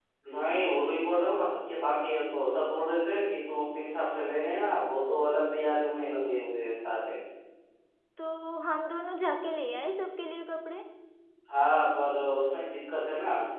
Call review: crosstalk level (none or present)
none